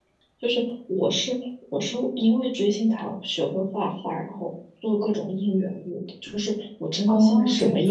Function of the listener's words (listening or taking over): taking over